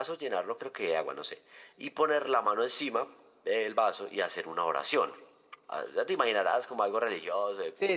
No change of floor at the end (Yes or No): No